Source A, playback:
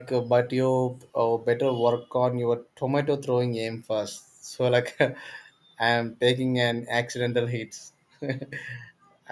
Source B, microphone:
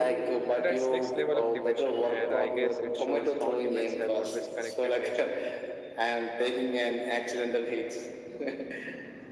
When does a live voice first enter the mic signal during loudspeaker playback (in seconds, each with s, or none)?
0.5 s